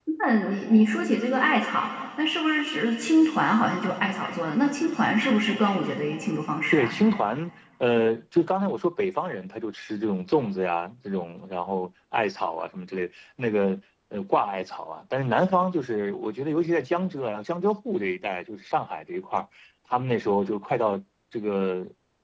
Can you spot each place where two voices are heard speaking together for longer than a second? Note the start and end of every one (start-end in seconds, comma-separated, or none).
none